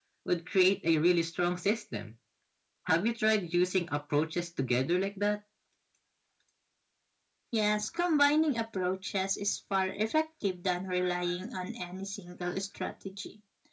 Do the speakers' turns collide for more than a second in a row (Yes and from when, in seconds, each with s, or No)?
No